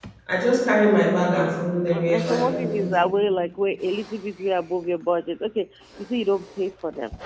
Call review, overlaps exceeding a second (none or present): present